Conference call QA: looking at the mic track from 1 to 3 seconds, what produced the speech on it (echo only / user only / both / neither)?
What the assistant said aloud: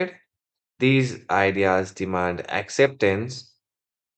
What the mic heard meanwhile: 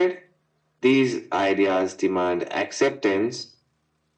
echo only